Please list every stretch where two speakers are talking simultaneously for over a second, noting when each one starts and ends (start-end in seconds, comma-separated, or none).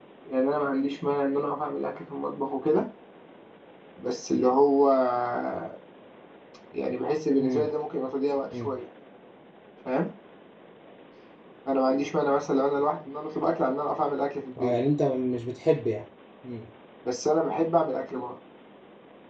none